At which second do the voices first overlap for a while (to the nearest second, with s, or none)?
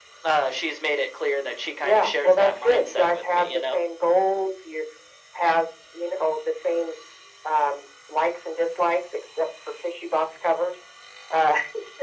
2 s